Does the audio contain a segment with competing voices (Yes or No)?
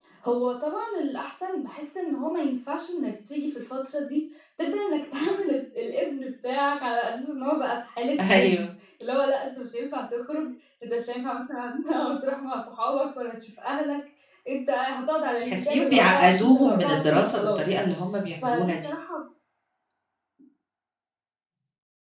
Yes